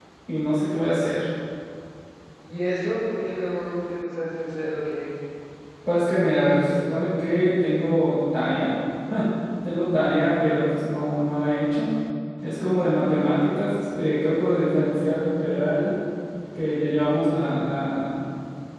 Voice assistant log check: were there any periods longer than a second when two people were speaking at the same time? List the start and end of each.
none

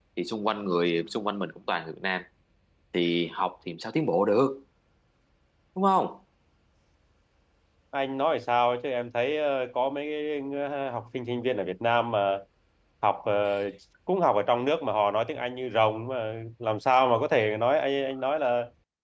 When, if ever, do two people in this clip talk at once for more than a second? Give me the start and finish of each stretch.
none

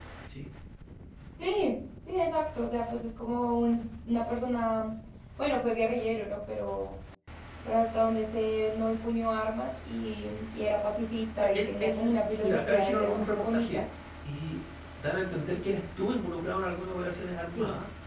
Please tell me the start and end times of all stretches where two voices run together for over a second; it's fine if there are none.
11.4-13.8

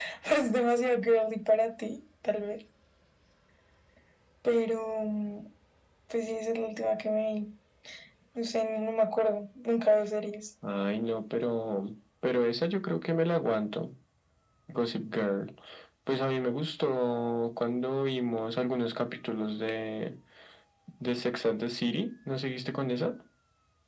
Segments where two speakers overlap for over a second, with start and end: none

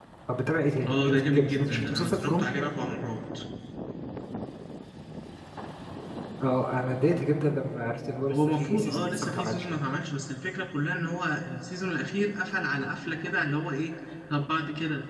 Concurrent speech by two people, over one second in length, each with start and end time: 0.9-2.5, 8.3-9.7

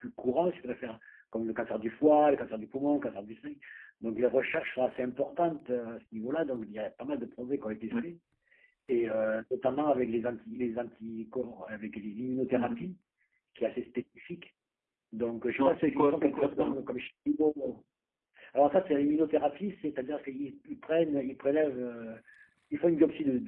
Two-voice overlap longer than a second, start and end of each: 15.6-16.8

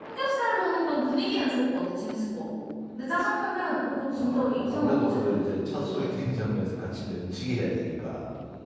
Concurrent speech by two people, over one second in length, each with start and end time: 4.1-6.1

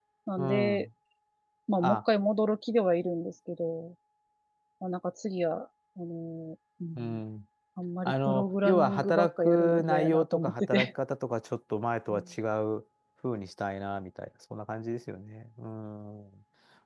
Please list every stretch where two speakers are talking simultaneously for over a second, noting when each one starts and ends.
8.0-10.9

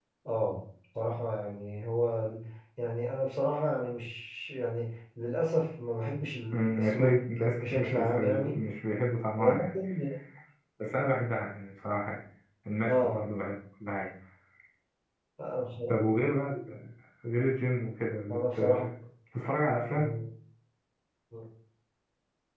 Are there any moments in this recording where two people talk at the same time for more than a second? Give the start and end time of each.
6.5-8.6

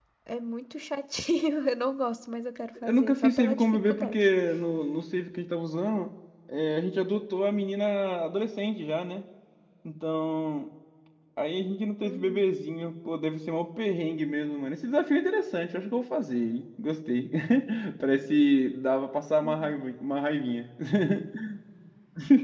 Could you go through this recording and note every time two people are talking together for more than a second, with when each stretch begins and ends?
2.8-4.2

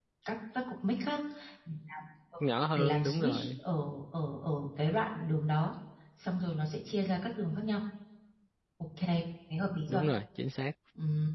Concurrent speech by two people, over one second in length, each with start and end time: 2.4-3.6

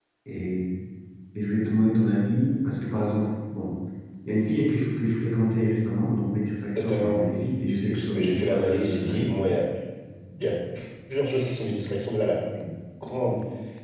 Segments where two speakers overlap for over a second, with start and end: 7.9-9.3

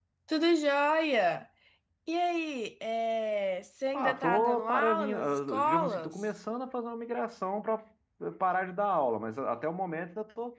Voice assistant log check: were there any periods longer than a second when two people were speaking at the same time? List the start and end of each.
3.9-6.1

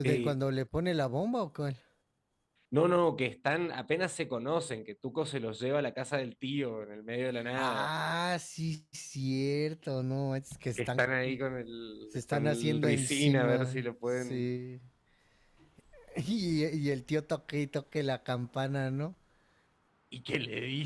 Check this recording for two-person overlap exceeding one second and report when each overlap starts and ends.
12.1-14.5

